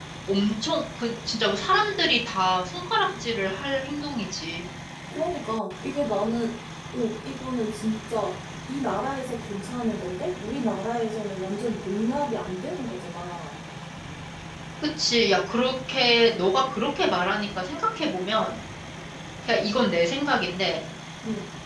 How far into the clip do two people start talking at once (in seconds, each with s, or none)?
none